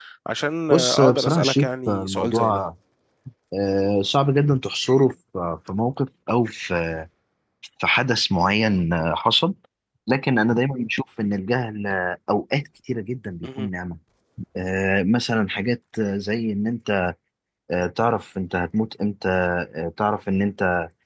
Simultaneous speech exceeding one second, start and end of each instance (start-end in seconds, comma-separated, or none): 0.7-2.6